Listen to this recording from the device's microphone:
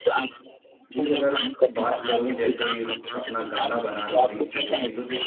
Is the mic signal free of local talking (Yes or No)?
No